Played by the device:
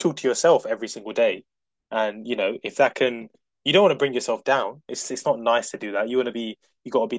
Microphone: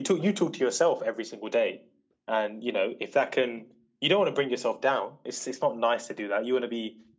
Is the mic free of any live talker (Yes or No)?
Yes